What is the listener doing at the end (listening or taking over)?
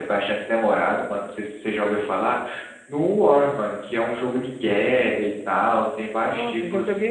taking over